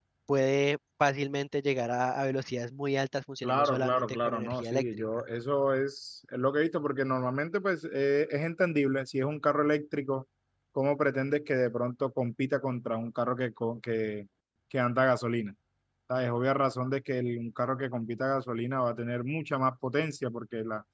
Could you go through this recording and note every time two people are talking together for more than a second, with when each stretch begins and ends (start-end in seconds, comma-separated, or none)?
3.4-5.2